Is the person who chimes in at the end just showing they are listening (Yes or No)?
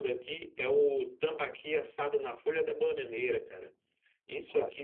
Yes